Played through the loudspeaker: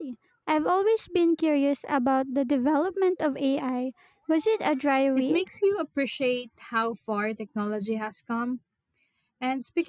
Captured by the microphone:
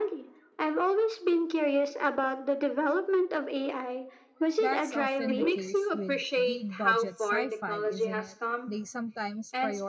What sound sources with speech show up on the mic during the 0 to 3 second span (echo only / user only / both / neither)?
echo only